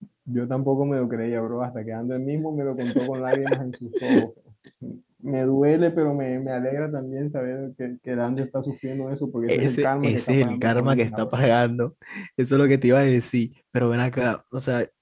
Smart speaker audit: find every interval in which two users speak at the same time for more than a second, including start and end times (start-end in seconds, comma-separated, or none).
9.5-11.4